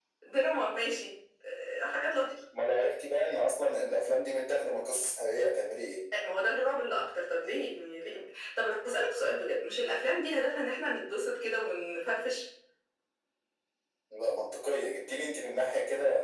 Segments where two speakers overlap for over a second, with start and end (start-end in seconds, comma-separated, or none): none